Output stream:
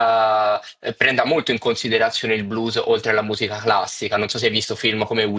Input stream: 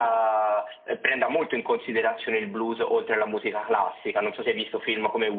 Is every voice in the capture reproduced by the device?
Yes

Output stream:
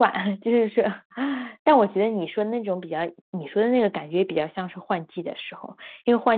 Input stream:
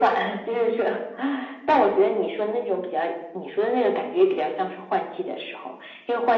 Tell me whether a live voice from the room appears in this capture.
No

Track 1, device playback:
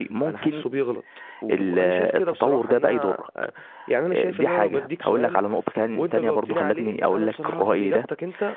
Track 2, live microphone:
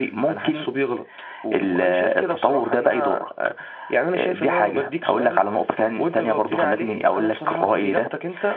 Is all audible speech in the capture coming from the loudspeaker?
Yes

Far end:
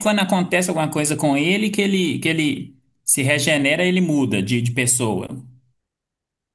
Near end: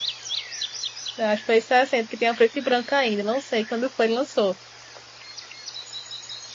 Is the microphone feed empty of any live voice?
No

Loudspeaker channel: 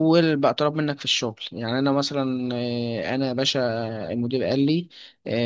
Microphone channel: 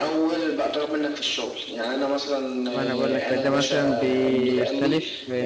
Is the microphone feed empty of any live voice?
No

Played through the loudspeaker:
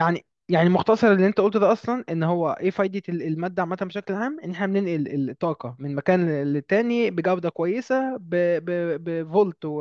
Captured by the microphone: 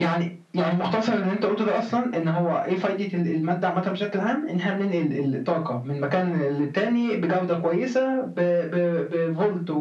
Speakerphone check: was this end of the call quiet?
Yes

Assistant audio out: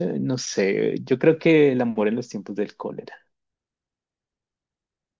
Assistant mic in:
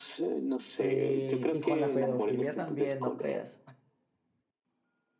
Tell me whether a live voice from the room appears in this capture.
Yes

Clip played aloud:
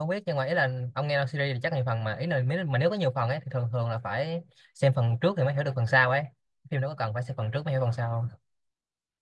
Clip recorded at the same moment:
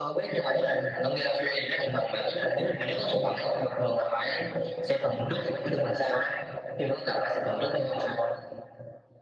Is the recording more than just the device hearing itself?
No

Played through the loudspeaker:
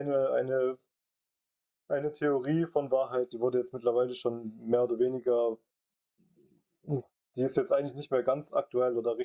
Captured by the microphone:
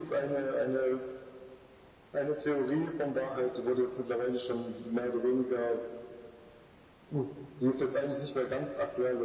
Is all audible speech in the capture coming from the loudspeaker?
Yes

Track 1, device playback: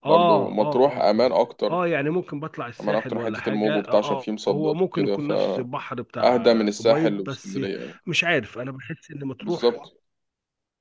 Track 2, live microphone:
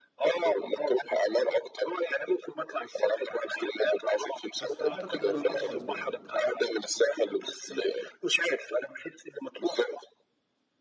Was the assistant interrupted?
Yes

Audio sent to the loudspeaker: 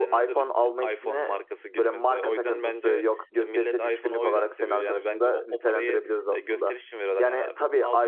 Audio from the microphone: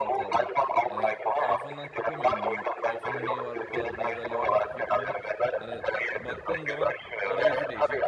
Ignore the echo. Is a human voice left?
Yes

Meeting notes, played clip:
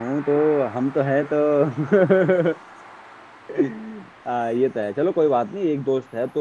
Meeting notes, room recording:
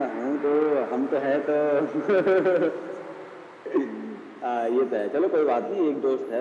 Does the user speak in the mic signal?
No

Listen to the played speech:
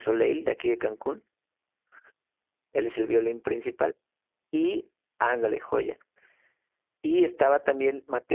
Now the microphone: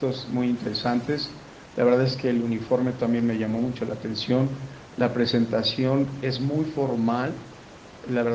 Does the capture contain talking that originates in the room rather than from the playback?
Yes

